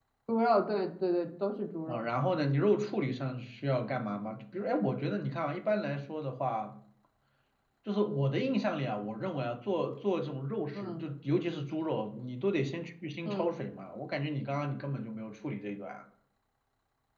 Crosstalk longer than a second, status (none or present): none